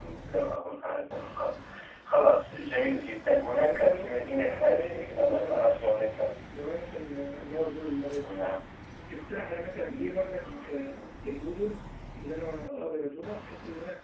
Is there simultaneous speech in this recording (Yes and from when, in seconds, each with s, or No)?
Yes, from 3.6 s